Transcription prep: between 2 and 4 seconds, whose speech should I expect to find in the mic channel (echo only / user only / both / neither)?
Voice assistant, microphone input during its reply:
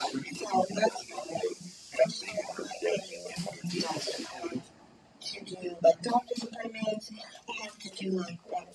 echo only